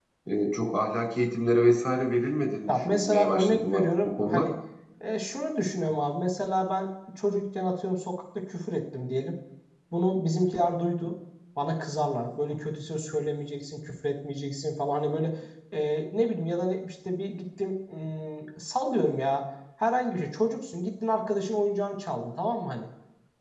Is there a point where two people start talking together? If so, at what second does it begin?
2.7 s

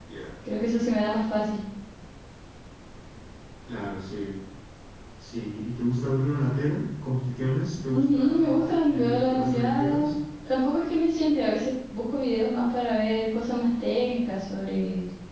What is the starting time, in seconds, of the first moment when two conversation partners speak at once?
7.9 s

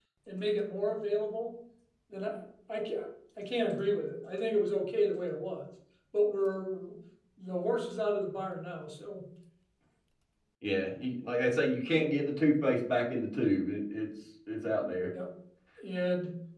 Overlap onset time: none

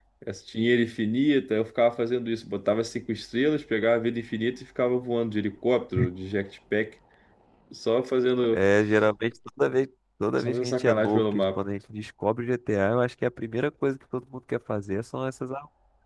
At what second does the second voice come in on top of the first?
10.4 s

